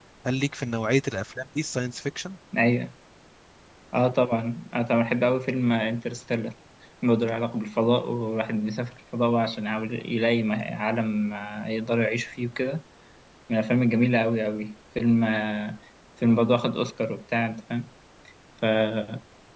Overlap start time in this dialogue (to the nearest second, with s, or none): none